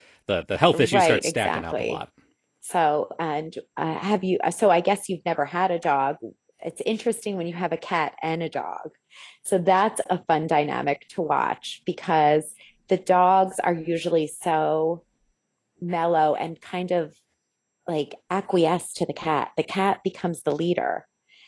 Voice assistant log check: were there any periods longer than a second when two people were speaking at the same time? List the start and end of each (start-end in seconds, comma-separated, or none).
0.7-2.0